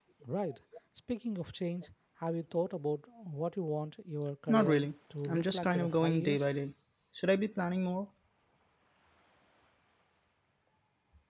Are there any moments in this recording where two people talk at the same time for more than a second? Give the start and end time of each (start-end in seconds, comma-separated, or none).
5.3-6.5